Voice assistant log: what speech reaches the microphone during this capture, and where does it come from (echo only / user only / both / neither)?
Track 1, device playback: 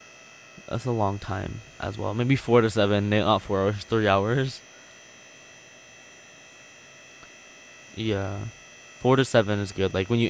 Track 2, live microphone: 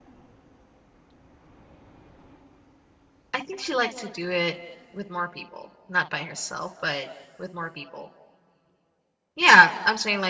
user only